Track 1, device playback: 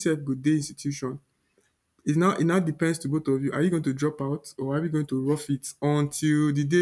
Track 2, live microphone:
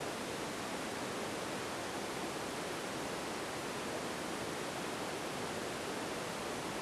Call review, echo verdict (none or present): none